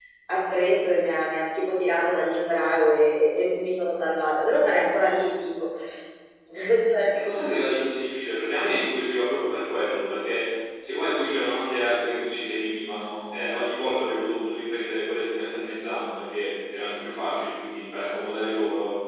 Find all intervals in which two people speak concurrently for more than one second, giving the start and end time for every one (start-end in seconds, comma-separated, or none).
none